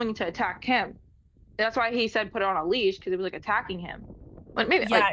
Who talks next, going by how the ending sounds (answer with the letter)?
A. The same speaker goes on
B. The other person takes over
B